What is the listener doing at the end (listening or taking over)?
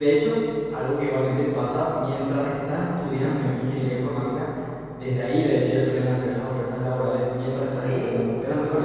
taking over